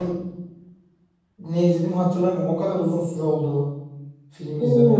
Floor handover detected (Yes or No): Yes